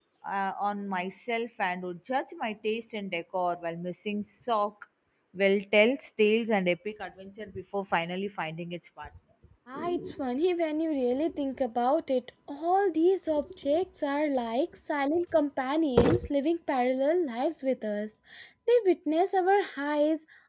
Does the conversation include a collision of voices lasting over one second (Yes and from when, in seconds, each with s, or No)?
No